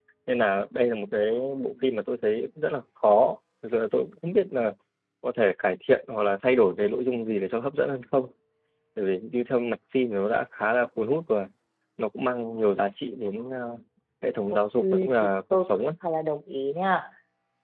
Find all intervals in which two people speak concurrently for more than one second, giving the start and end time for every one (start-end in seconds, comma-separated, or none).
14.5-15.8